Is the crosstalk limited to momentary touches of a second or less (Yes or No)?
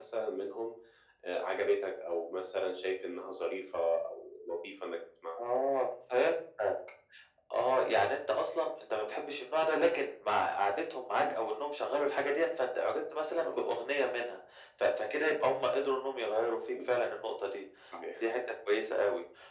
Yes